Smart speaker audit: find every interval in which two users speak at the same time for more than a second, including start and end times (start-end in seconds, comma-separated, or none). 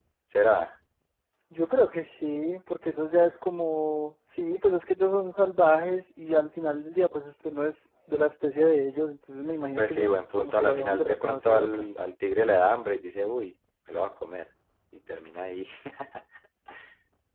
9.8-11.8